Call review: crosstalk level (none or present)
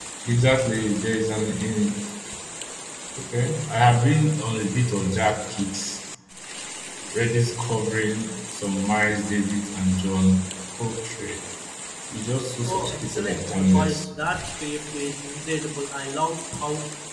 present